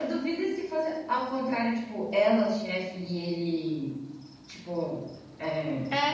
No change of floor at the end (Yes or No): No